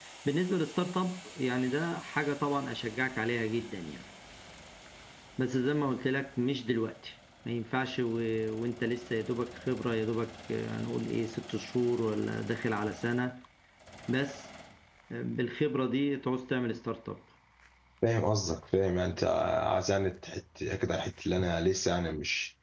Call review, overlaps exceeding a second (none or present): none